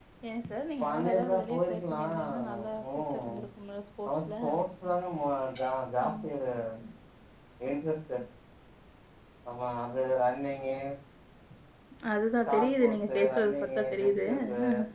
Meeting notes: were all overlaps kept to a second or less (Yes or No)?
No